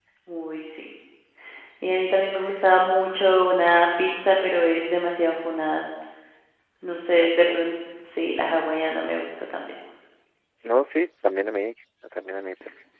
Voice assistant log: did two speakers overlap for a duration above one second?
No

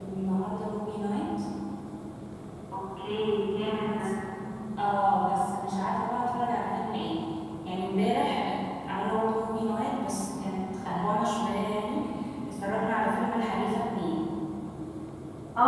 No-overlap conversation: Yes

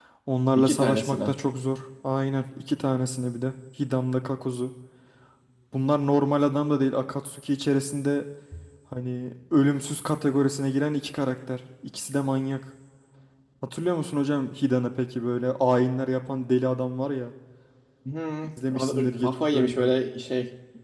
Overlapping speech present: Yes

